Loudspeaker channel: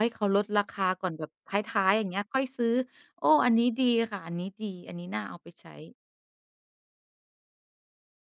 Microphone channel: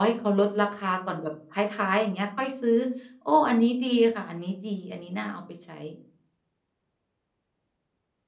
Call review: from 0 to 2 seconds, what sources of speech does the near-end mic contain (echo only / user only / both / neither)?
echo only